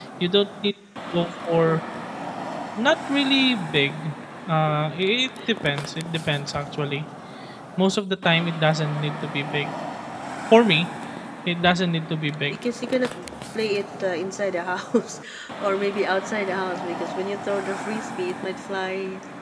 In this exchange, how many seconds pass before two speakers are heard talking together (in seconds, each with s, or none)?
none